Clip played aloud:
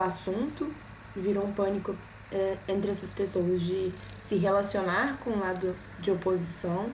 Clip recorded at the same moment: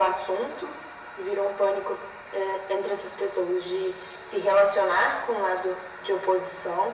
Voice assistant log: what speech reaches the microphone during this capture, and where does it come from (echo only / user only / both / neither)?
echo only